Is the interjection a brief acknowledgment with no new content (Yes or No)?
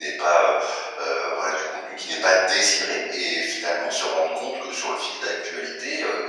Yes